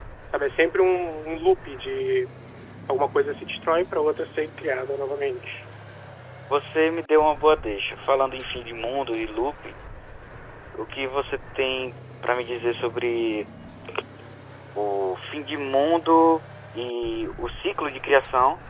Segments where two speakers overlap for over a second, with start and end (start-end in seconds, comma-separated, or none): none